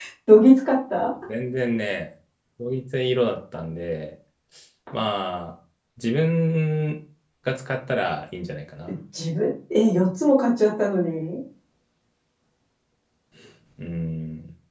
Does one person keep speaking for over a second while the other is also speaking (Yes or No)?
No